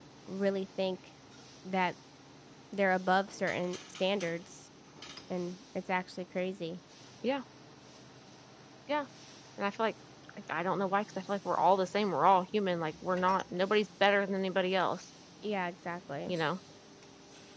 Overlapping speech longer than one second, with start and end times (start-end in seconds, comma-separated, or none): none